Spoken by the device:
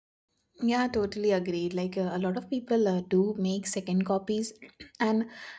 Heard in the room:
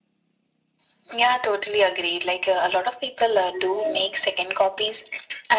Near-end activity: present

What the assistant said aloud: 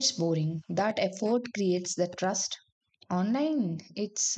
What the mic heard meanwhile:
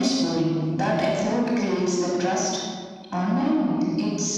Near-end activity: none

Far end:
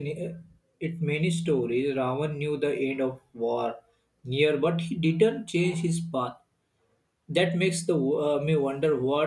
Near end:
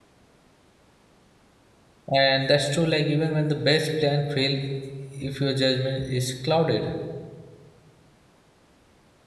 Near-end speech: present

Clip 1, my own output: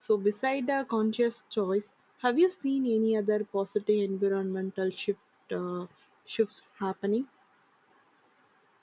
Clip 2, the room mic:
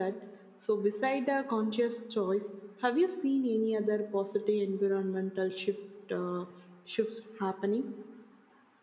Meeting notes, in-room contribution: none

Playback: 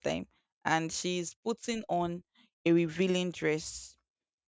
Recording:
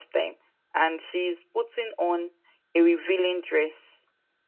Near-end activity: none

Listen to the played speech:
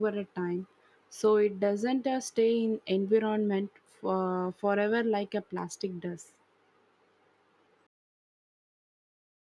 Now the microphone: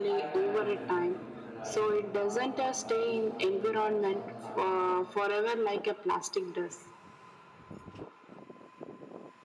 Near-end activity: present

